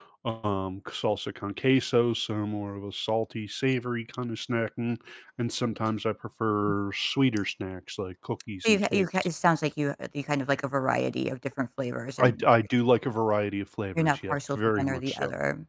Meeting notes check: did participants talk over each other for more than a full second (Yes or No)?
Yes